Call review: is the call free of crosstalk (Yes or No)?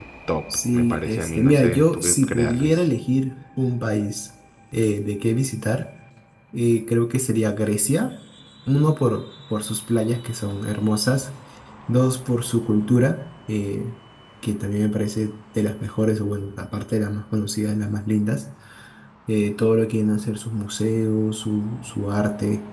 No